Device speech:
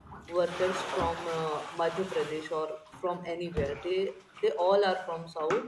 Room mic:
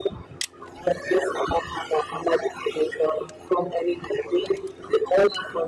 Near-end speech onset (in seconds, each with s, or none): none